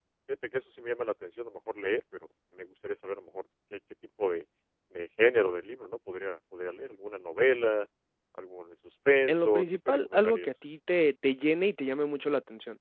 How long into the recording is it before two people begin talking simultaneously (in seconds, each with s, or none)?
9.3 s